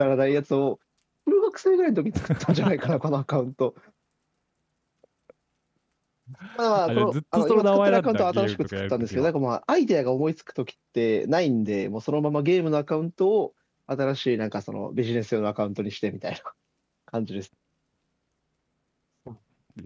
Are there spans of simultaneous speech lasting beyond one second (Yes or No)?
Yes